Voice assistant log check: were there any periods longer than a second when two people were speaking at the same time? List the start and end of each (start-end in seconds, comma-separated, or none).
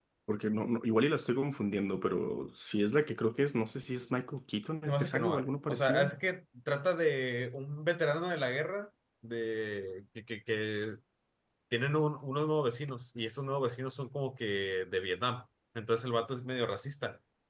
4.9-6.1